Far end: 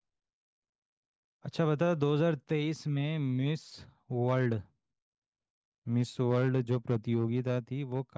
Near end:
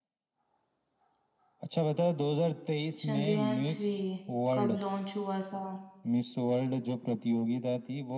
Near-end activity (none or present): present